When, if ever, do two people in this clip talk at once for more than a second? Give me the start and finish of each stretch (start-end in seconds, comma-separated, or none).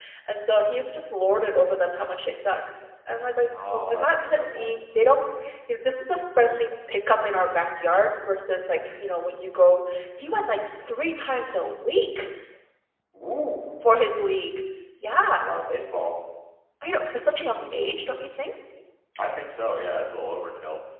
3.5-4.7